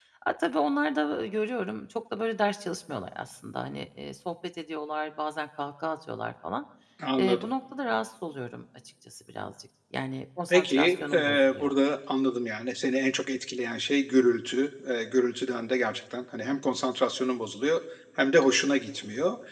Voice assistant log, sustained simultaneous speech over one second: present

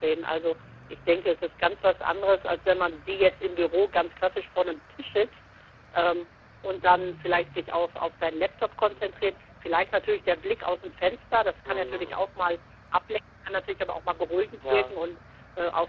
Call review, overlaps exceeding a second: none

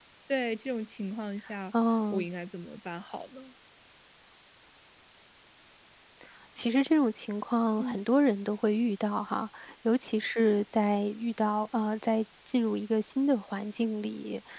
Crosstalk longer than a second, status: none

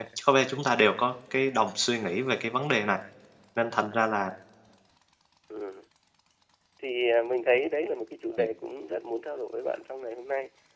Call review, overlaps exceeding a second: none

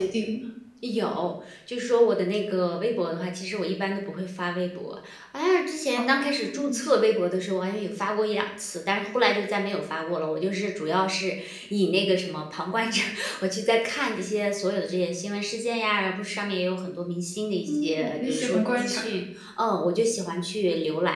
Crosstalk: present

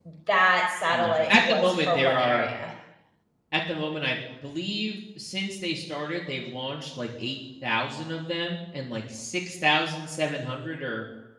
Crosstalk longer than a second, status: present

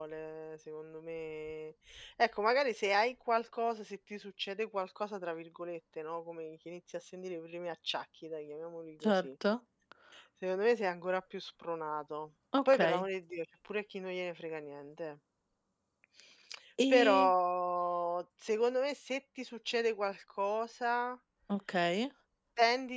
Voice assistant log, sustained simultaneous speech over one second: none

